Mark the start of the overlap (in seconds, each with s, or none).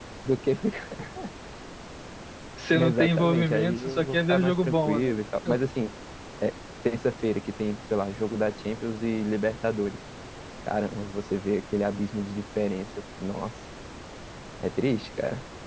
2.7 s